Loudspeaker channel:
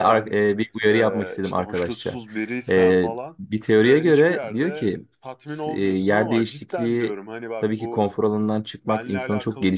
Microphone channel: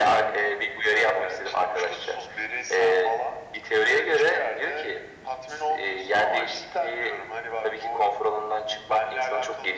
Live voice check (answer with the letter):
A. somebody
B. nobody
B